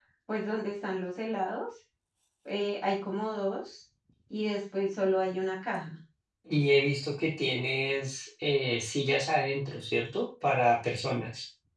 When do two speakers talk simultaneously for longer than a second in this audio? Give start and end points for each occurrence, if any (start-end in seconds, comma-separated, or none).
none